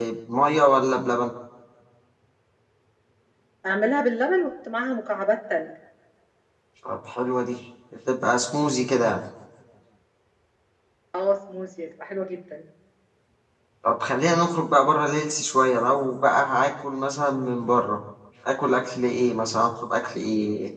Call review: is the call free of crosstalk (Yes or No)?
Yes